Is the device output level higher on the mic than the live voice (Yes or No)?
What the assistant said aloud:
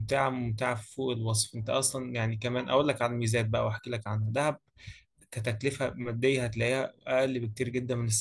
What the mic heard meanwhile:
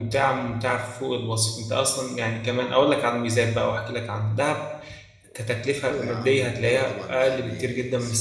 Yes